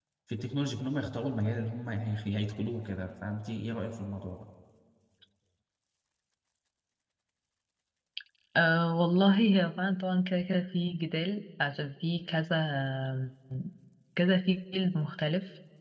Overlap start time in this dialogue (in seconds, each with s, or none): none